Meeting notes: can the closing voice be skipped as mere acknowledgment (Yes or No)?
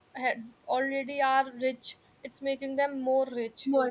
No